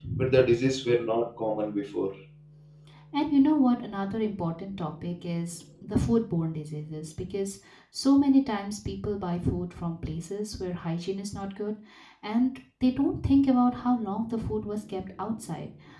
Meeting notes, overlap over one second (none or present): none